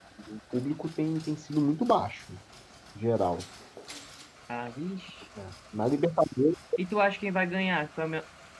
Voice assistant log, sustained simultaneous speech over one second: none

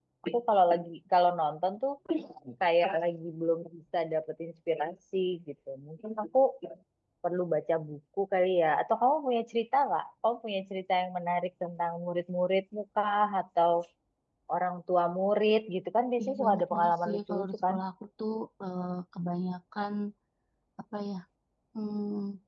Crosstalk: present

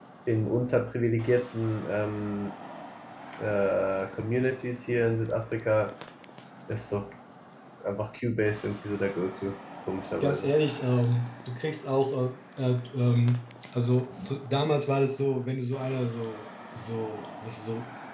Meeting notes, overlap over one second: none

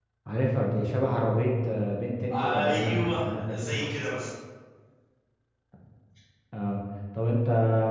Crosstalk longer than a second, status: present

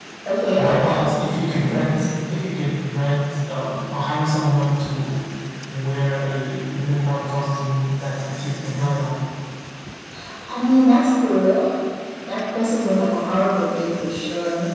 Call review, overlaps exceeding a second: none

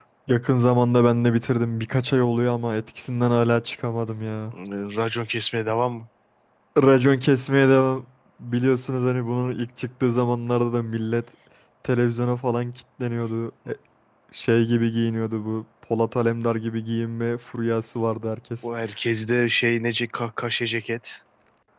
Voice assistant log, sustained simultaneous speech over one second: none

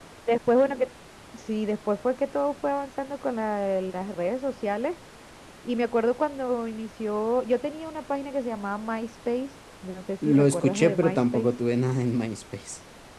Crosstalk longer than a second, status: present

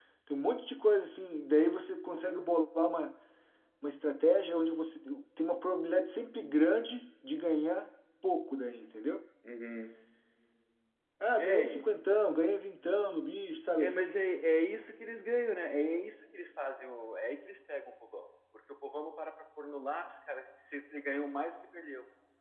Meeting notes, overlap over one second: none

